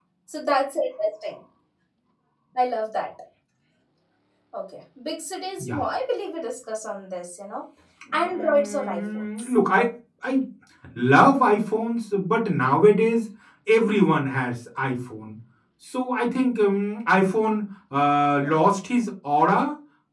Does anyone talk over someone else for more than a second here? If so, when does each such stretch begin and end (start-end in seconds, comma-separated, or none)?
8.1-9.5